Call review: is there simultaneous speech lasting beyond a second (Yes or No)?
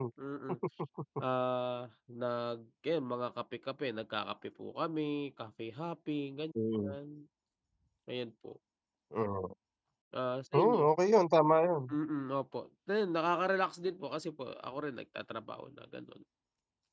No